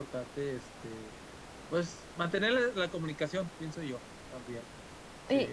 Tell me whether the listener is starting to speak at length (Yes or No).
Yes